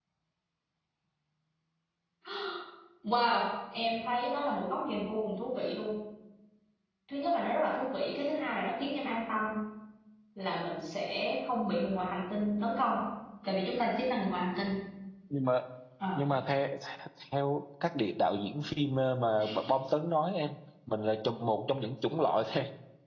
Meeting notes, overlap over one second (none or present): none